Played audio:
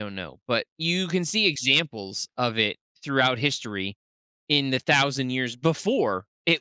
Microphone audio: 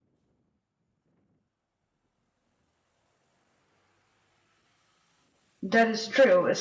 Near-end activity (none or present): present